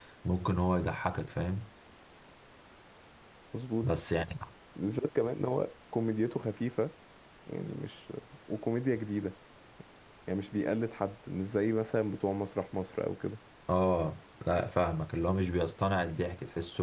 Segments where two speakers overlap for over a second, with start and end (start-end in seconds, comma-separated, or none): none